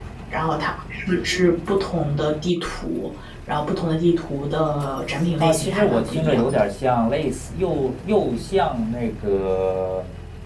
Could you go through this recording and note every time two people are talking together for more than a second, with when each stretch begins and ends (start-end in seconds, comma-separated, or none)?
5.4-6.6